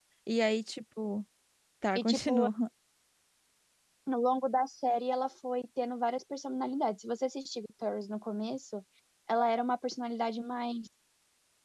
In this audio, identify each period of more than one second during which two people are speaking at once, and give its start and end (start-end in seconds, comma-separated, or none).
none